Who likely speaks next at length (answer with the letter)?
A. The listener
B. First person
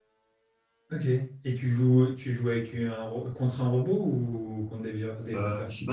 A